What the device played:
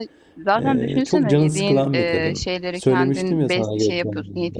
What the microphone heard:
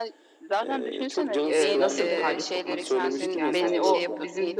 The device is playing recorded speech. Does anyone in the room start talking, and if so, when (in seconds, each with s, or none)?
1.5 s